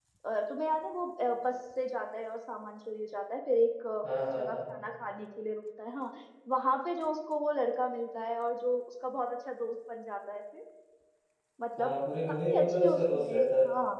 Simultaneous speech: Yes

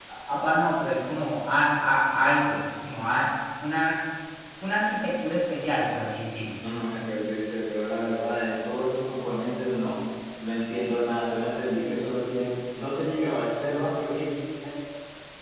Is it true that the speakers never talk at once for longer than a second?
Yes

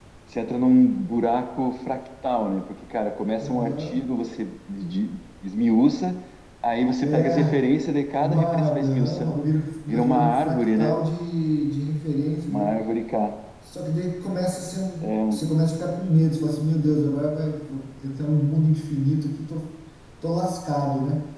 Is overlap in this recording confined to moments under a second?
No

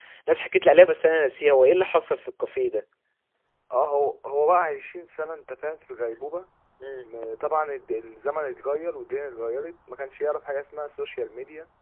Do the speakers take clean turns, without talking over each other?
Yes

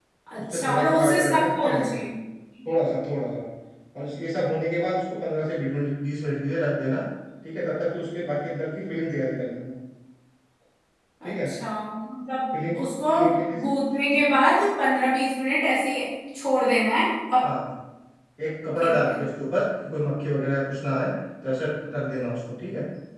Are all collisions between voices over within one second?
No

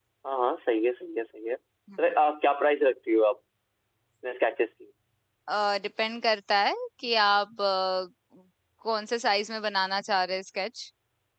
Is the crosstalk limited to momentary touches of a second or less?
Yes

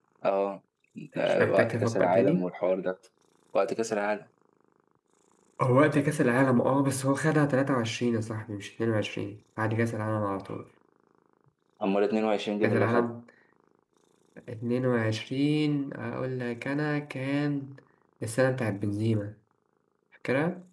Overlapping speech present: Yes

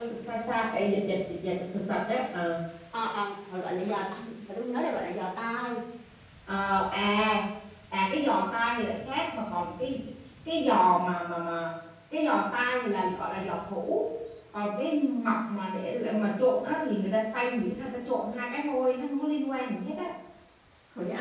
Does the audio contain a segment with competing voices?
No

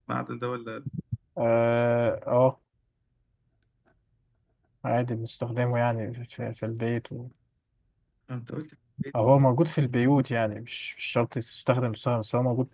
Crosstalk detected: No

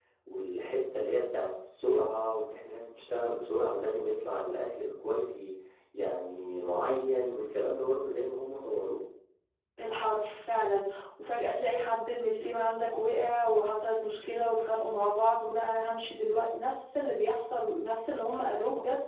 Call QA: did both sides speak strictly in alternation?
Yes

